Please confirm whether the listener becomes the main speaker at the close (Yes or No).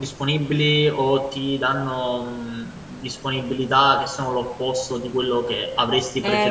Yes